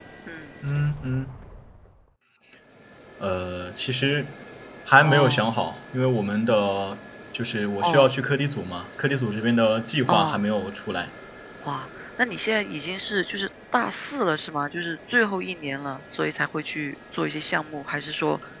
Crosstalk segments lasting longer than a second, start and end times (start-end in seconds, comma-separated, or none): none